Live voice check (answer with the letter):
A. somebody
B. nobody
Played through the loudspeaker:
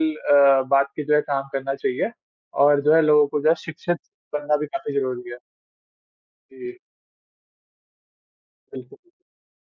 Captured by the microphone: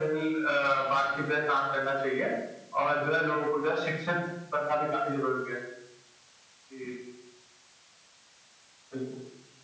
B